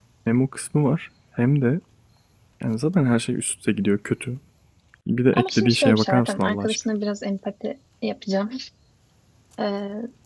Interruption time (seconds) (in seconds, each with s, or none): 5.3 s